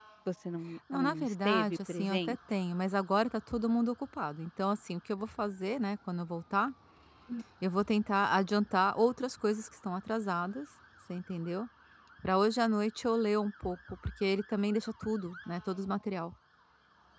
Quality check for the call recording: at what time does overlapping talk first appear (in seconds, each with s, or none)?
0.9 s